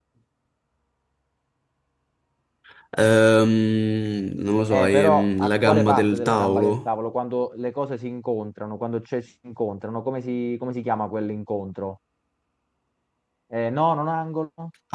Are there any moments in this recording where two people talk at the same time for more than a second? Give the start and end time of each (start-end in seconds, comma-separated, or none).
4.7-6.8